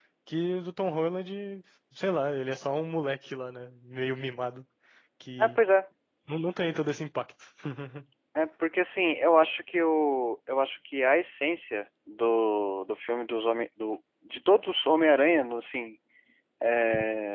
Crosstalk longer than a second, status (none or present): none